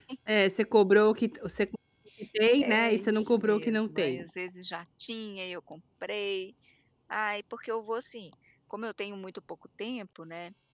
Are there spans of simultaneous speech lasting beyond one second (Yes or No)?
Yes